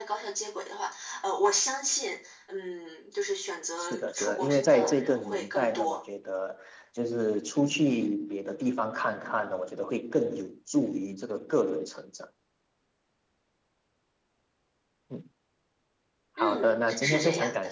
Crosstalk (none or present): present